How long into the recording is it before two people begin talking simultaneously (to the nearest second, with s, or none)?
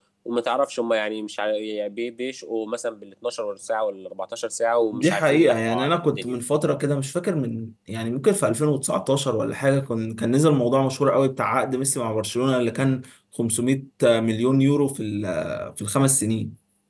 5 s